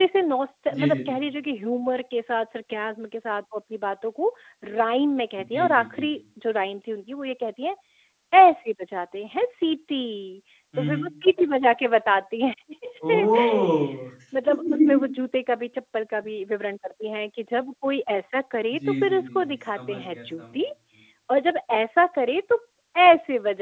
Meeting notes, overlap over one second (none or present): present